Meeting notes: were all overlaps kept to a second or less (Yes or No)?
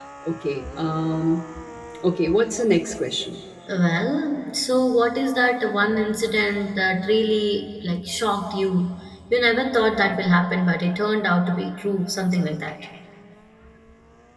Yes